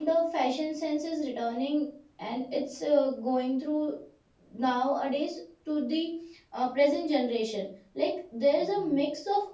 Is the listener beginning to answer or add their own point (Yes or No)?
No